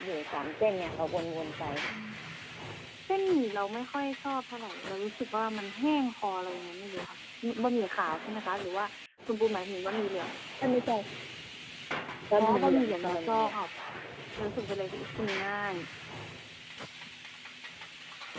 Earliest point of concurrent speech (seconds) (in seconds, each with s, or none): 12.4 s